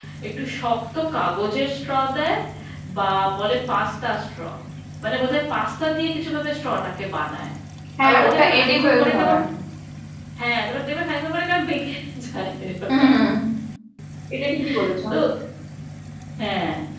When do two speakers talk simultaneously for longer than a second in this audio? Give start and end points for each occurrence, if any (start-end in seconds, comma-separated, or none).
8.0-9.3